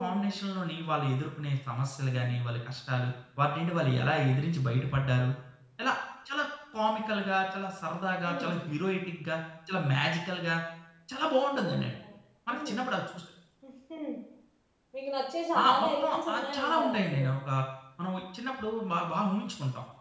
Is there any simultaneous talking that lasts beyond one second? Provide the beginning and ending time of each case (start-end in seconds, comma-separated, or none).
15.6-17.3